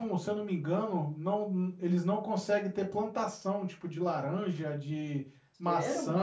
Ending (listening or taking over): taking over